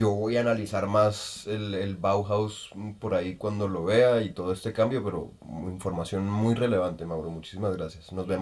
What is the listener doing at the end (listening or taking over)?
taking over